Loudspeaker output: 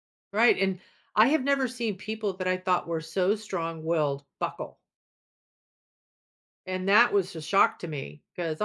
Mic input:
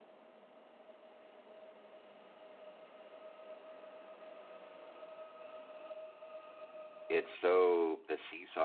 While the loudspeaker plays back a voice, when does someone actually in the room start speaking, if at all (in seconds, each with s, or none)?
7.1 s